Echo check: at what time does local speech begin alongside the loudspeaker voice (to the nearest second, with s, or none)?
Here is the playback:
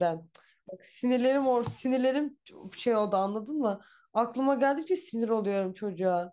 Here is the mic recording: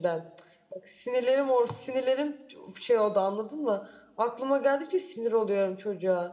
none